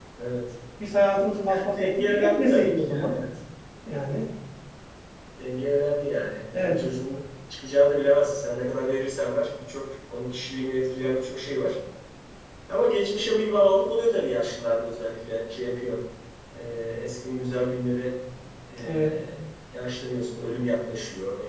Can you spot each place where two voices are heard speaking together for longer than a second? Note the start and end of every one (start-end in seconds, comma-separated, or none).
1.5-3.2